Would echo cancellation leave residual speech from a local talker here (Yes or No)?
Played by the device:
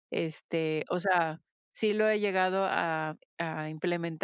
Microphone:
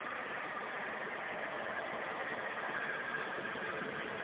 No